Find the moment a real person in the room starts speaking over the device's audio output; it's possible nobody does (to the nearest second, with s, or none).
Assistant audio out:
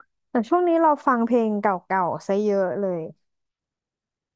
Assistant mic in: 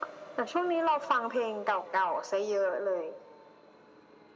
none